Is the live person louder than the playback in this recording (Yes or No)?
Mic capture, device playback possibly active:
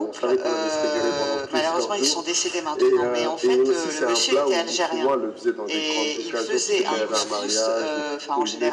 No